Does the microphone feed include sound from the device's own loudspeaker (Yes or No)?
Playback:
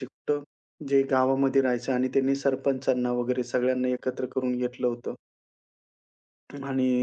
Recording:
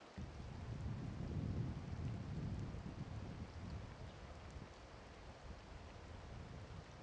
No